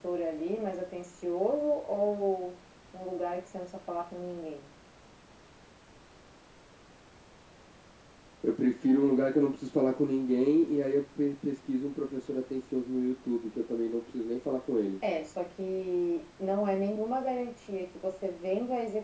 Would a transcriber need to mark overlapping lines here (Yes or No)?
No